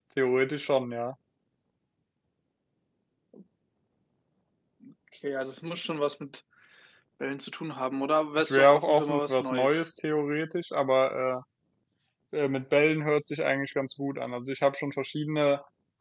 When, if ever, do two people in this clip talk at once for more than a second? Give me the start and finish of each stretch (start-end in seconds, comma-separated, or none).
8.4-9.8